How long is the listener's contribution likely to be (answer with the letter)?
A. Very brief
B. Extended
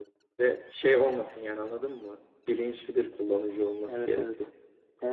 B